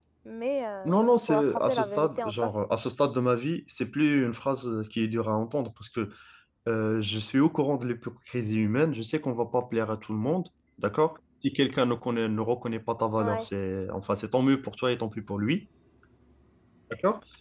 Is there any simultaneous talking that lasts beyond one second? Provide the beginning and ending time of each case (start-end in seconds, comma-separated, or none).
0.8-2.5